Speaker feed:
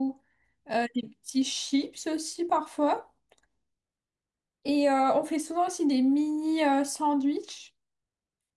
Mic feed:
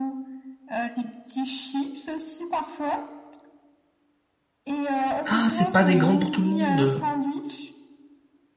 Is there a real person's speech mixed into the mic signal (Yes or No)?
Yes